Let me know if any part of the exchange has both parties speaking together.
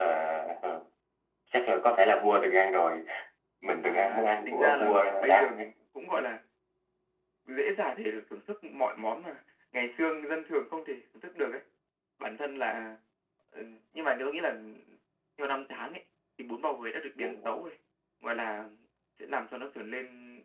Yes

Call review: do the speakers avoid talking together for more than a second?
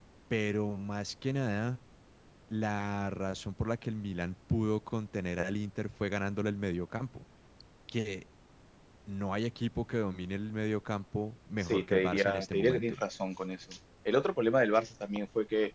No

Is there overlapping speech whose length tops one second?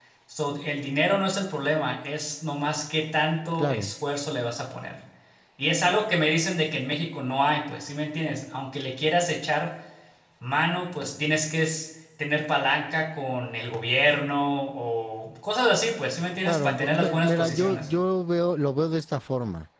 Yes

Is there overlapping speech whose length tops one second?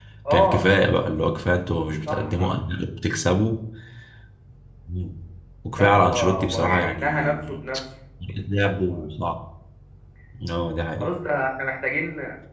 Yes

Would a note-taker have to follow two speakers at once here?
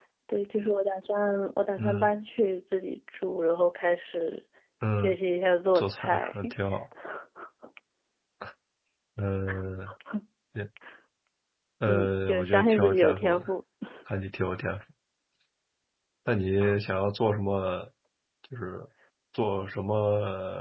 Yes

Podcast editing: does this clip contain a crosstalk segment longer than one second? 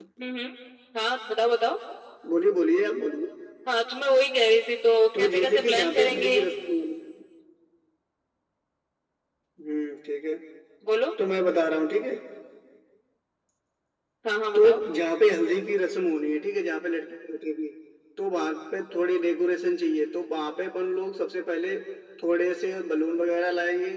Yes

